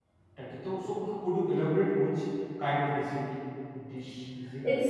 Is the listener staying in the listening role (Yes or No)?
No